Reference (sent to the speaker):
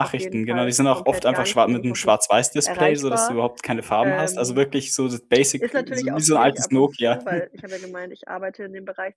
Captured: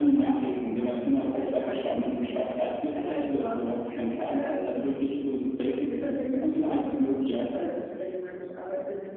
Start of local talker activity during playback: none

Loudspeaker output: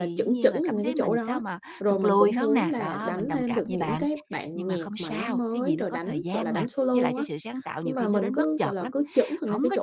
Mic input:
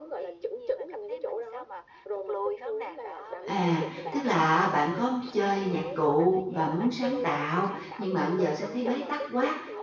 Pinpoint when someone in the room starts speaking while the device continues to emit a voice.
3 s

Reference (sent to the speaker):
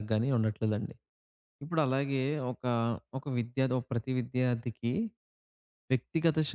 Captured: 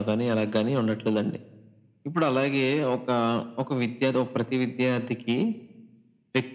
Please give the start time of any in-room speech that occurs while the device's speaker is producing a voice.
none

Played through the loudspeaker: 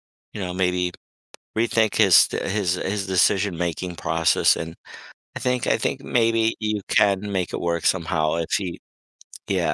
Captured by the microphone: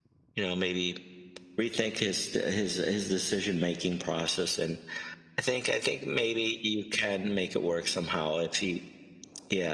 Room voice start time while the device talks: none

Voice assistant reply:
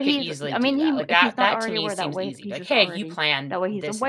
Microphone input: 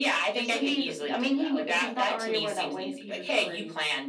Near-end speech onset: none

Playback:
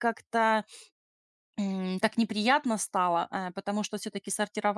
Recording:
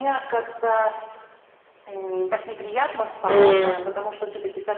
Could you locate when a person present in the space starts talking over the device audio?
3 s

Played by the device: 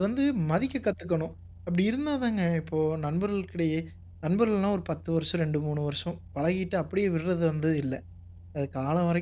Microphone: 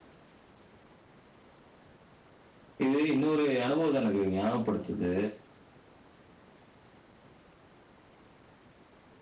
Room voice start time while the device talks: 3 s

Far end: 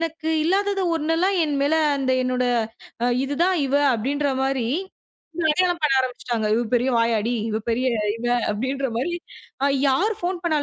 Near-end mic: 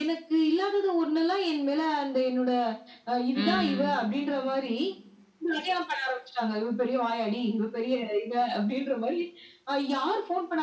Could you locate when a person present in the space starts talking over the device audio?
3 s

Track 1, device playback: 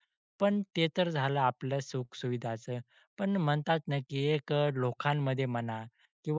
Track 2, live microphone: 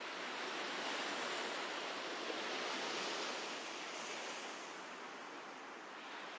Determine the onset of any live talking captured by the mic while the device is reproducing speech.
none

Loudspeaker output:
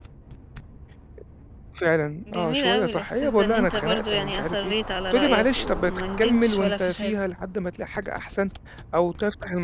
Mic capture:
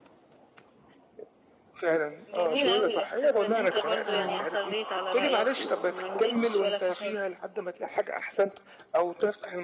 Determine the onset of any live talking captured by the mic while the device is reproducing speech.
4 s

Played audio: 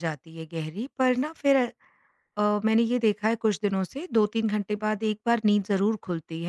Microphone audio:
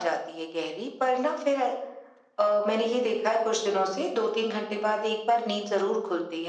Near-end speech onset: none

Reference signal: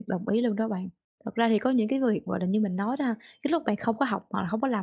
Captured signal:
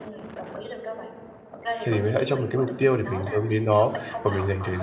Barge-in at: 2 s

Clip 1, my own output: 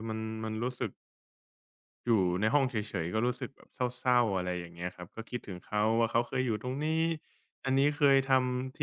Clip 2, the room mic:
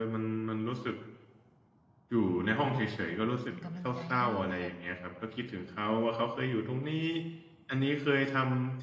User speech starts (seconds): 3 s

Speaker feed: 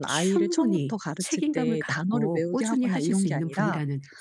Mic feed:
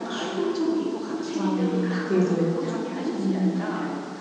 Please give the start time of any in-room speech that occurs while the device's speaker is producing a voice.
1 s

